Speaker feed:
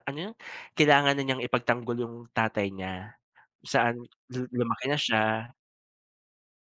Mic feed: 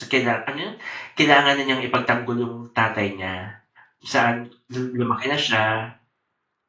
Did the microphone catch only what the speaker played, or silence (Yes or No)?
Yes